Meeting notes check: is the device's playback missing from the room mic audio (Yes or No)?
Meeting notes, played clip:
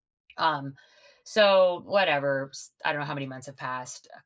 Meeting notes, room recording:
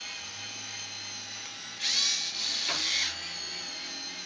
Yes